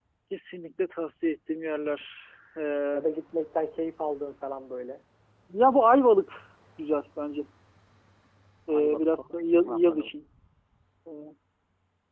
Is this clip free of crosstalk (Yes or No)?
No